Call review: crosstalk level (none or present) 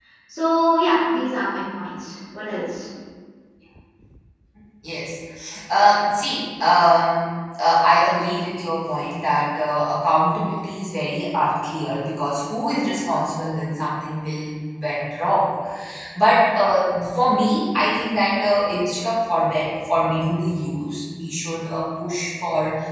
none